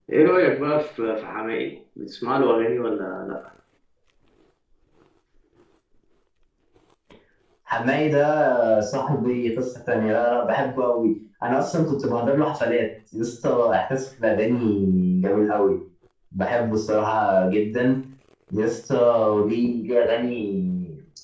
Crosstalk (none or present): none